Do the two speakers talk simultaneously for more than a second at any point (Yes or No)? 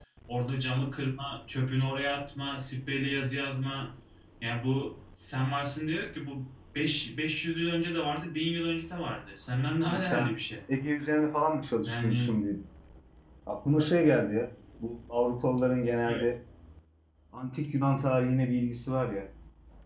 No